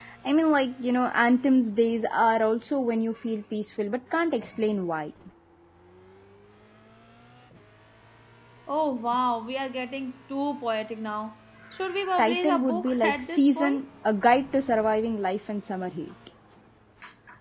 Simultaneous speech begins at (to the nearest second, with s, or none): 12 s